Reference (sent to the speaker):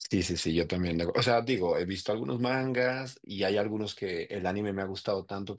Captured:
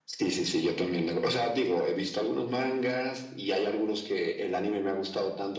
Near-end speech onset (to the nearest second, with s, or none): none